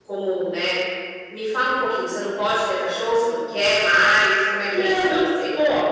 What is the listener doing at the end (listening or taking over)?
taking over